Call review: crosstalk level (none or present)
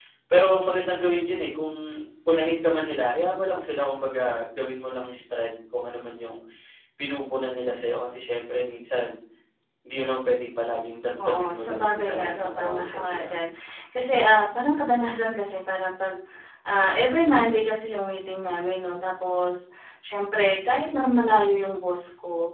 present